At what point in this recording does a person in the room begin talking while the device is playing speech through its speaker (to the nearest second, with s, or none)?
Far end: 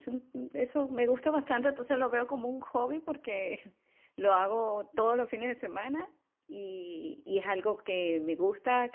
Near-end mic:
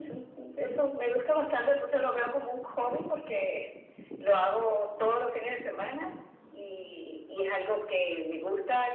none